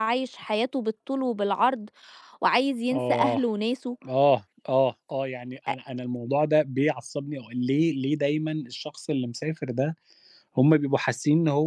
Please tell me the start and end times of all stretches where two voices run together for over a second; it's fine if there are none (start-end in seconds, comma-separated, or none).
none